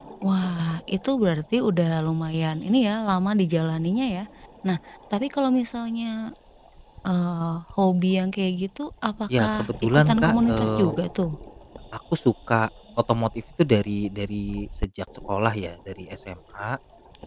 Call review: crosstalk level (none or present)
present